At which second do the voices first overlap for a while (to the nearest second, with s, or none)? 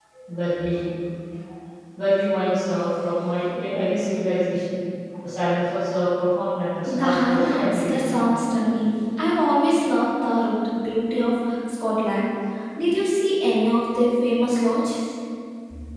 7 s